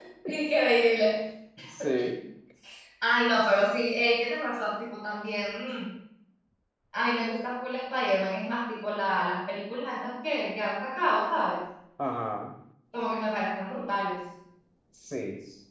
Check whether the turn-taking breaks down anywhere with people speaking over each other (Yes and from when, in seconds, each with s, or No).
No